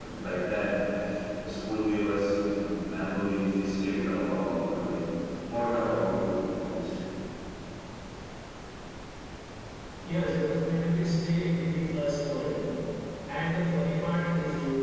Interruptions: none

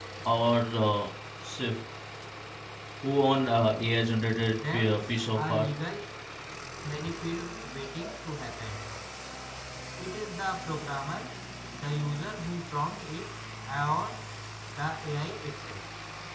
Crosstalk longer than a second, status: present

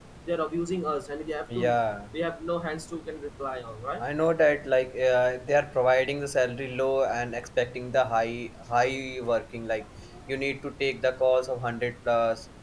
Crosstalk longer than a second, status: none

